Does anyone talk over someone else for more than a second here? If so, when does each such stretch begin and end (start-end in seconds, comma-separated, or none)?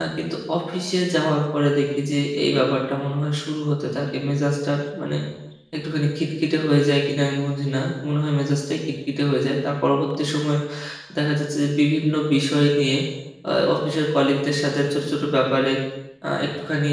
none